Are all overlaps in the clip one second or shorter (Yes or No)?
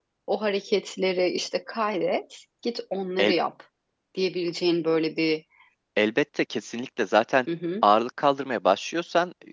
Yes